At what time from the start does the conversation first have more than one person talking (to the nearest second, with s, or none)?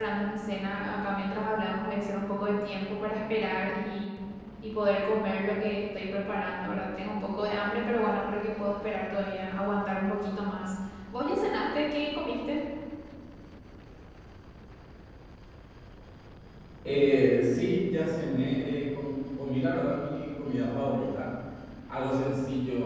none